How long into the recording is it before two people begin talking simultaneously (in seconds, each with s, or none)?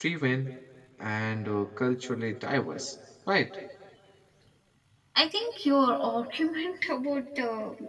none